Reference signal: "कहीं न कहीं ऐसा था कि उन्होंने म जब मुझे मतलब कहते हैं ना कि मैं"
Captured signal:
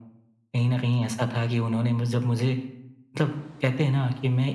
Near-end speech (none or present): none